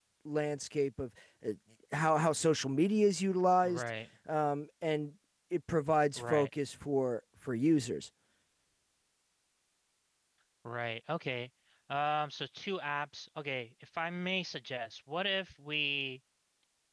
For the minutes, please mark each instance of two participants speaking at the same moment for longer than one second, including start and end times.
none

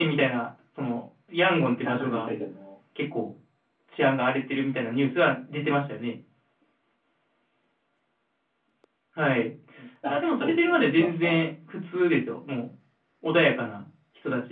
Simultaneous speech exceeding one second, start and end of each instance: 10.1-11.4

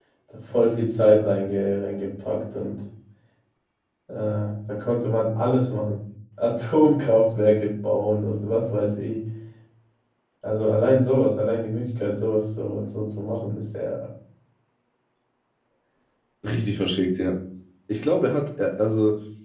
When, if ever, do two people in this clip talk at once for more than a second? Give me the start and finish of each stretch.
none

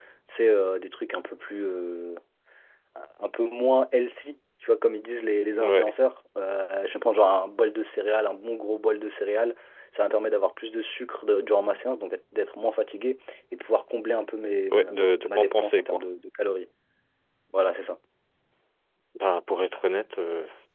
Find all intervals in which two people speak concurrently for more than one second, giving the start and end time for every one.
14.7-16.0

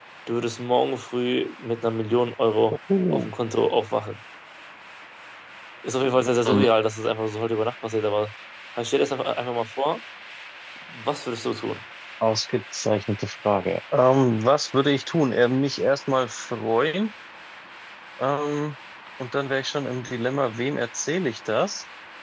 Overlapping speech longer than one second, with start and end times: none

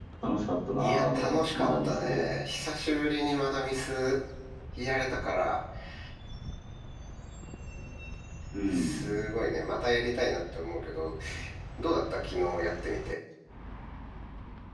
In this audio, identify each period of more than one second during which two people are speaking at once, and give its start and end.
0.8-2.2

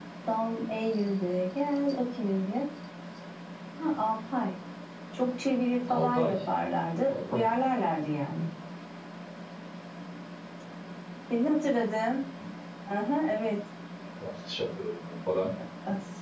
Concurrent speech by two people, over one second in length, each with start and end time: none

